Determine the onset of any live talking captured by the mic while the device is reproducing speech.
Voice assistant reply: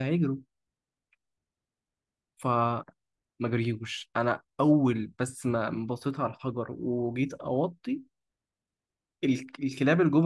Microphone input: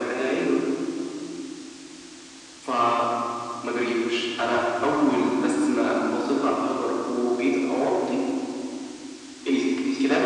none

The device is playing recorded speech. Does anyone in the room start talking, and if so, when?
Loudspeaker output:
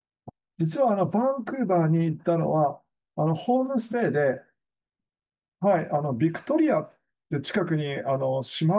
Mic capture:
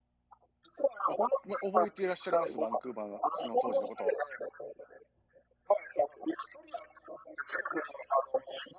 1 s

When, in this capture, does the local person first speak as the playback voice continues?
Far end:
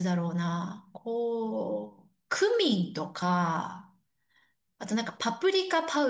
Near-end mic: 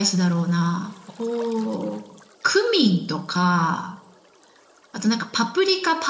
none

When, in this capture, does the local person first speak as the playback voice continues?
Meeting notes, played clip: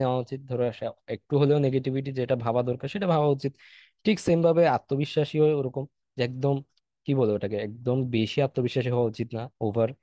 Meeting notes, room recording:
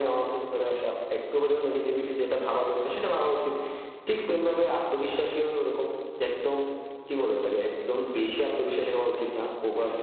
none

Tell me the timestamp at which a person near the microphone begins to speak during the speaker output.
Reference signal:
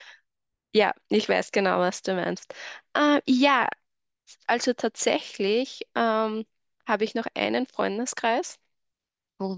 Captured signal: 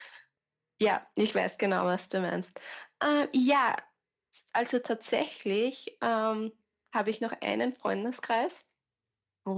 none

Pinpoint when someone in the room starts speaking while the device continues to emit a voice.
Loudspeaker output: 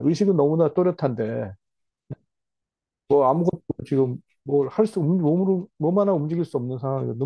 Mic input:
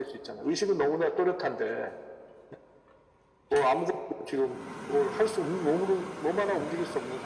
none

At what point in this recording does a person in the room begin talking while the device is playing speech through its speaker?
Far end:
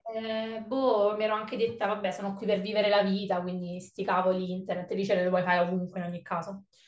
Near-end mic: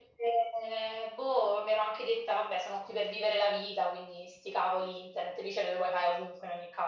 none

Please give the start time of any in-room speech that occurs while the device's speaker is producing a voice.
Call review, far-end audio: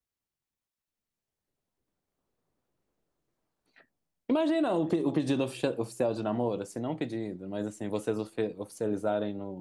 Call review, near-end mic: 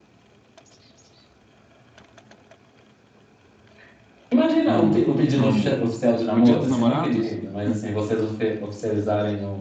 5 s

